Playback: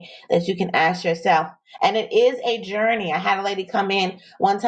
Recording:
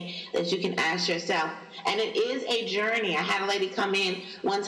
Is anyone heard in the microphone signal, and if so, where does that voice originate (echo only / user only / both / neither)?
echo only